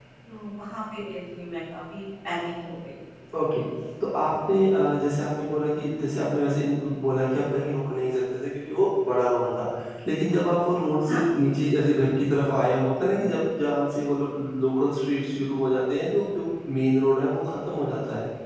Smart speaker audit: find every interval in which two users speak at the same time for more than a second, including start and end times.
none

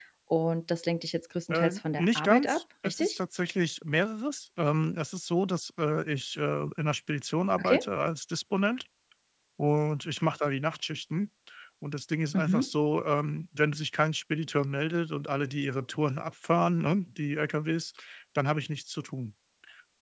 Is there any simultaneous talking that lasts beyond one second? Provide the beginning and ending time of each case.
1.5-3.2

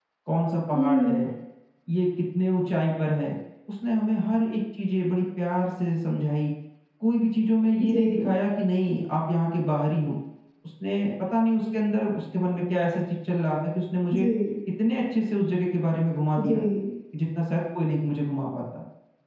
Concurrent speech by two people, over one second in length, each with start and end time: none

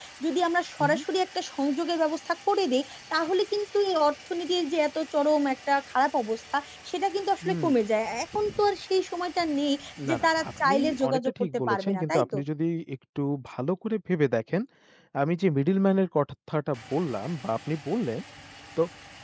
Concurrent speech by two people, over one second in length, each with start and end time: 10.1-12.4

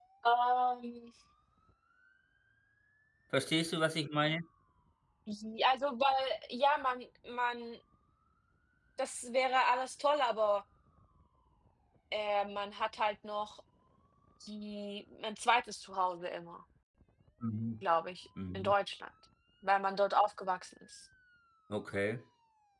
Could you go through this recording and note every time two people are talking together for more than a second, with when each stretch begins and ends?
none

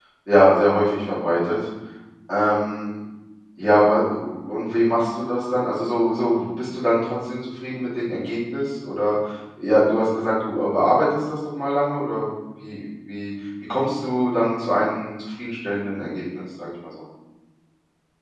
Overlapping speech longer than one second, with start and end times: none

